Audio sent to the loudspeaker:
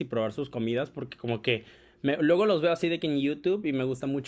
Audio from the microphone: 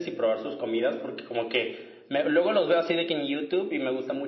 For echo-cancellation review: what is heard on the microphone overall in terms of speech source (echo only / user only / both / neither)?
echo only